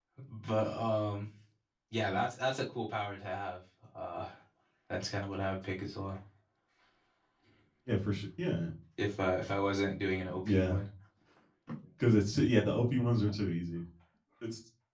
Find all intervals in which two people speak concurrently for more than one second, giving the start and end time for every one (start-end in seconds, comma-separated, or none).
none